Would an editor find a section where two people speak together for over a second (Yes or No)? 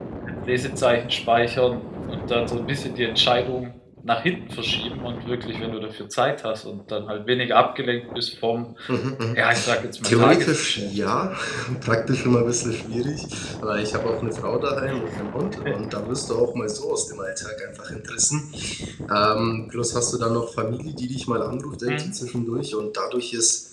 Yes